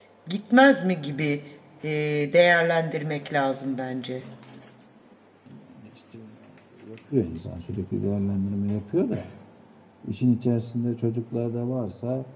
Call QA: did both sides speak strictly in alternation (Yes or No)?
Yes